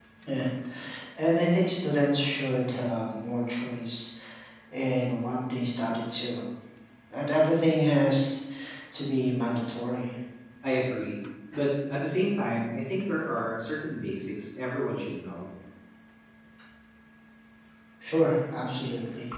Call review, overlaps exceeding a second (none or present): none